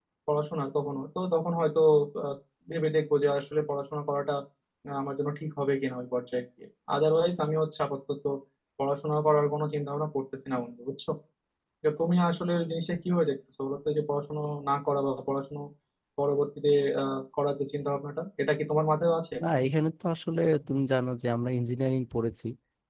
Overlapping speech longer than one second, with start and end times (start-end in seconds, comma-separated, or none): none